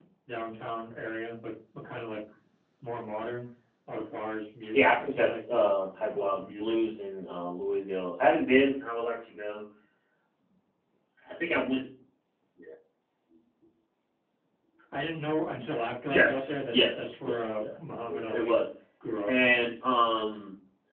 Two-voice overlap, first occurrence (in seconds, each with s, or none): 4.7 s